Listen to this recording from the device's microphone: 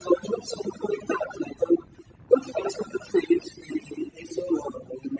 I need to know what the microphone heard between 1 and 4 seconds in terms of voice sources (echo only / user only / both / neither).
echo only